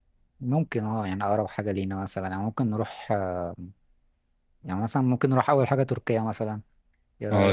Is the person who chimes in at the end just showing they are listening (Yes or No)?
No